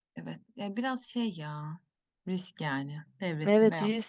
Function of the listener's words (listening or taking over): taking over